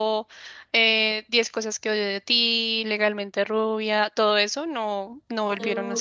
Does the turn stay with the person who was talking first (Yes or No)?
No